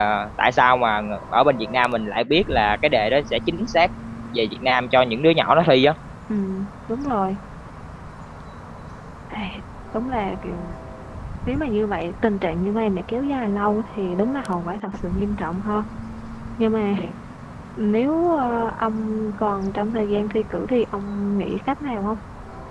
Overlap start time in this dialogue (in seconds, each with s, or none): none